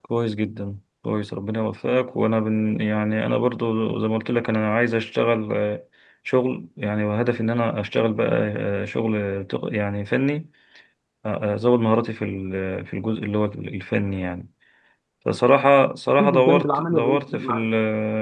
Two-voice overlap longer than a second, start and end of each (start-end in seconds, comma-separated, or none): 16.2-17.6